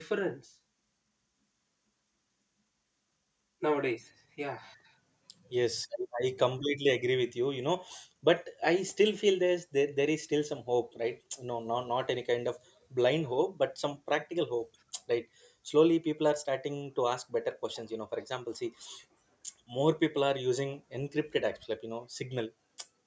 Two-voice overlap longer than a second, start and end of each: none

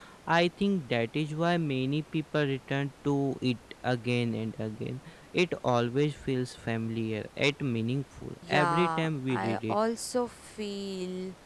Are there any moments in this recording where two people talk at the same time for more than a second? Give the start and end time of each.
8.5-9.8

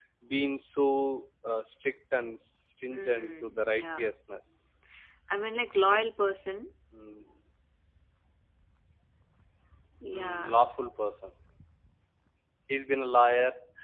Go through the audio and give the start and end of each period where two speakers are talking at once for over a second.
2.9-4.1

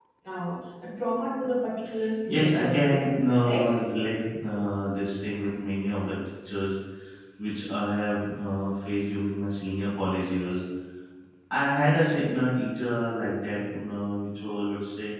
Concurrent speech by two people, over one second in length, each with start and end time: 2.3-3.7

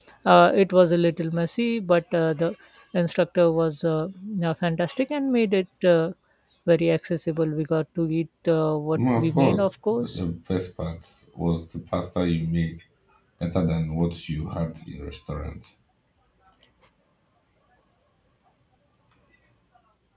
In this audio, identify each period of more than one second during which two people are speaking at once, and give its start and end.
8.9-10.2

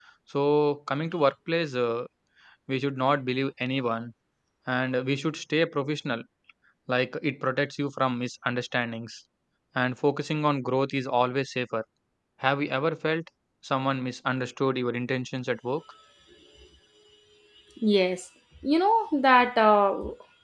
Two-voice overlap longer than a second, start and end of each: none

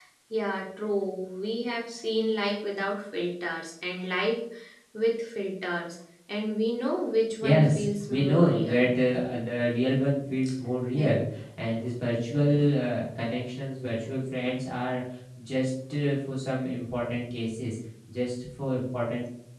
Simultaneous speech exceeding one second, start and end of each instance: 7.4-8.9

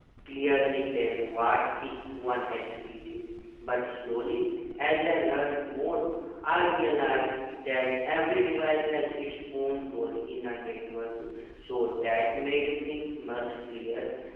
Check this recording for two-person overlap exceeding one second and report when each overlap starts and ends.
none

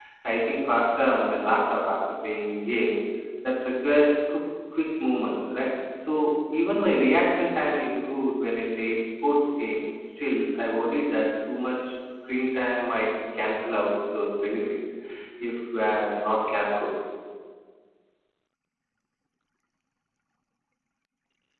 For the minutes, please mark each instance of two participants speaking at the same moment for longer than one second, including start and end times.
none

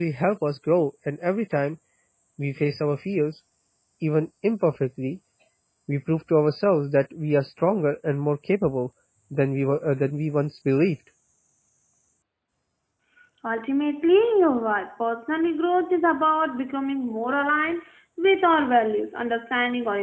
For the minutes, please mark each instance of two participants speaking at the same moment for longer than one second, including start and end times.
none

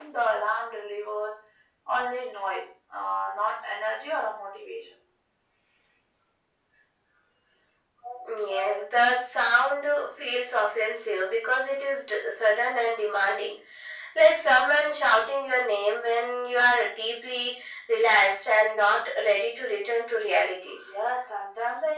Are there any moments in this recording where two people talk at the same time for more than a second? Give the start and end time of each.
none

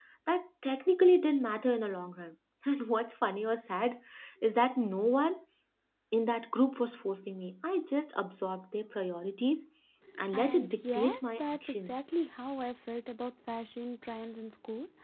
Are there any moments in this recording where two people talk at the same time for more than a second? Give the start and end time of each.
10.3-12.0

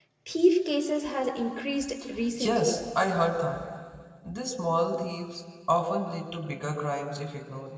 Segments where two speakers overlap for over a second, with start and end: none

